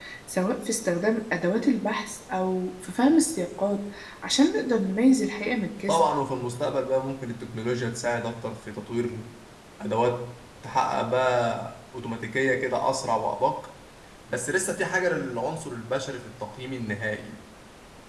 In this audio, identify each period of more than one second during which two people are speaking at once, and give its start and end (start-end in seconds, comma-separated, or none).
none